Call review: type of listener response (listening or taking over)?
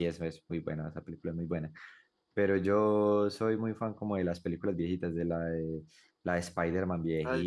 listening